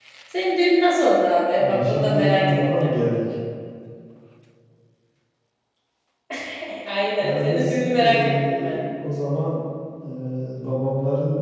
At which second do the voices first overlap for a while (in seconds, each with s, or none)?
1.6 s